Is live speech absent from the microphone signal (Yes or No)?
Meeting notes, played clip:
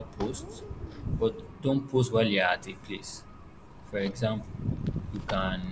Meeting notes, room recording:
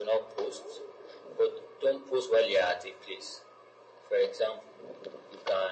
Yes